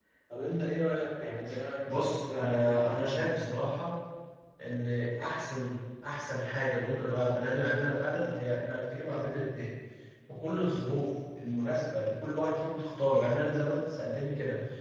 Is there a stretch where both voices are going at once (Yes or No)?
Yes